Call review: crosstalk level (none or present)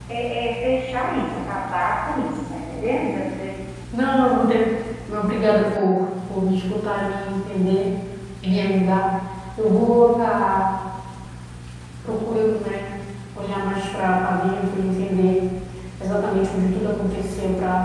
none